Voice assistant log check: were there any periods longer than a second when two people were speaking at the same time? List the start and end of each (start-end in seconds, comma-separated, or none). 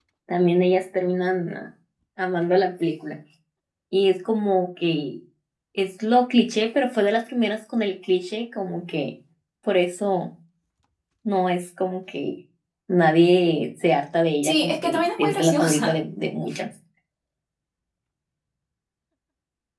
14.4-15.9